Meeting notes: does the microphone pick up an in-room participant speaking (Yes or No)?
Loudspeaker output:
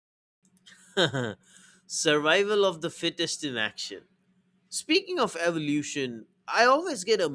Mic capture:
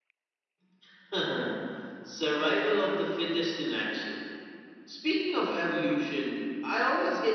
No